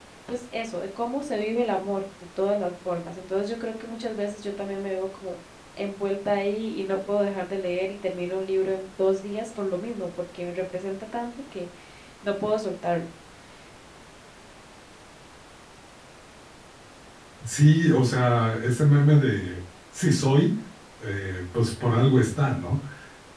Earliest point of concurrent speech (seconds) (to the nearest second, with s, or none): none